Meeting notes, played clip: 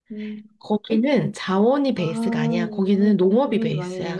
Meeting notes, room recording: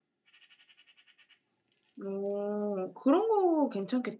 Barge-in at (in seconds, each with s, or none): 2.0 s